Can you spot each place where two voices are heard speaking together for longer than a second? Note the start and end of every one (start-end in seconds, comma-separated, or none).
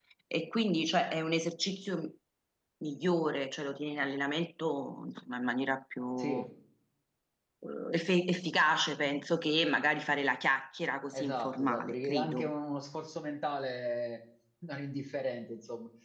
11.2-12.5